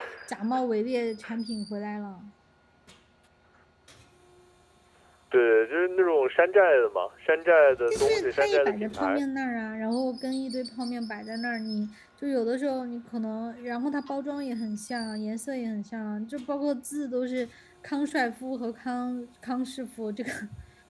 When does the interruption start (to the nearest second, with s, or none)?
8 s